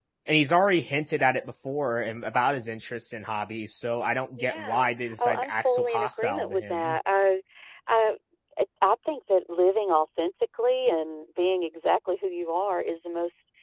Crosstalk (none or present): present